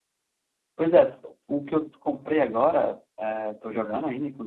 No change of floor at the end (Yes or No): Yes